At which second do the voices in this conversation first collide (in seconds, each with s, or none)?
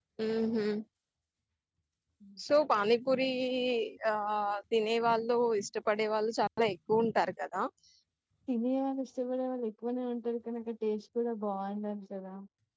none